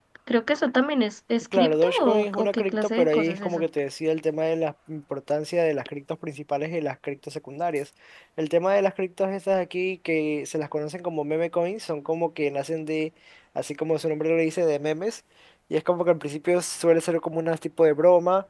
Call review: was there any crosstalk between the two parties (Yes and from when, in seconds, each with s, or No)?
Yes, from 1.5 s